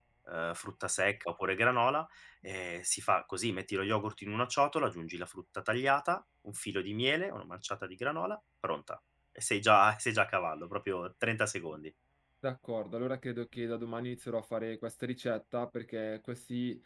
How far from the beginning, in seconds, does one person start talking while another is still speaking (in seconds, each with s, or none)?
none